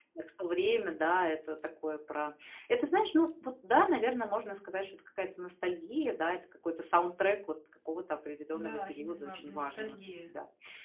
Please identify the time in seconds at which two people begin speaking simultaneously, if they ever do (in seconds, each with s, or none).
8.5 s